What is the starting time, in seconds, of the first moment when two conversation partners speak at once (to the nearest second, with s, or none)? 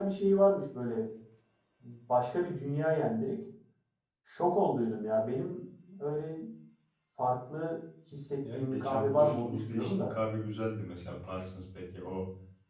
8 s